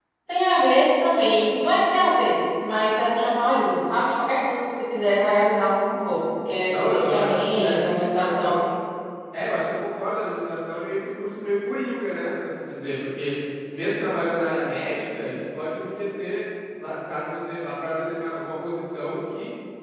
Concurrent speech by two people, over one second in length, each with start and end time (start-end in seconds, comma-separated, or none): 6.7-8.5